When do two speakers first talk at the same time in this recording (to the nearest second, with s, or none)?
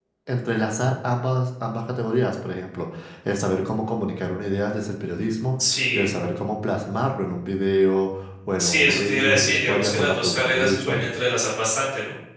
9 s